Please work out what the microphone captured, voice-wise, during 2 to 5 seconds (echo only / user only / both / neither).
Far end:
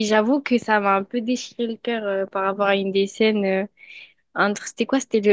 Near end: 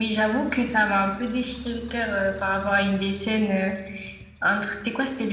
echo only